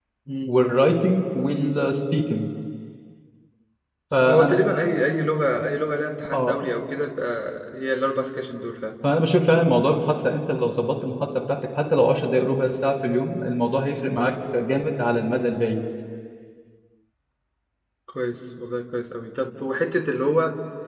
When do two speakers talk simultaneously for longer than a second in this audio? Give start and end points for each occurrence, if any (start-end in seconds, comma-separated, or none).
none